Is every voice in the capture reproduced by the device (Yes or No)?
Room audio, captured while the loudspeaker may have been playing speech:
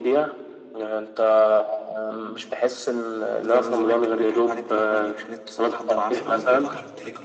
No